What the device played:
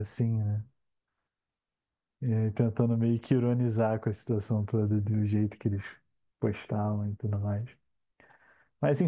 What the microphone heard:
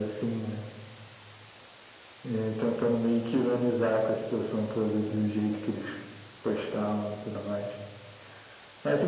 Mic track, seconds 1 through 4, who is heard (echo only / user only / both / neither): echo only